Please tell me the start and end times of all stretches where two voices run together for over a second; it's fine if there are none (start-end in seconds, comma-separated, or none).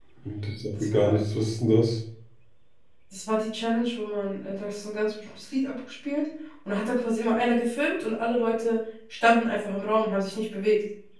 none